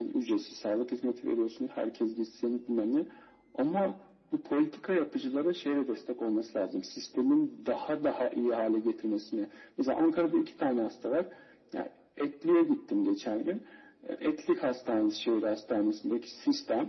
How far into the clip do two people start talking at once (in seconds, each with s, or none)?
none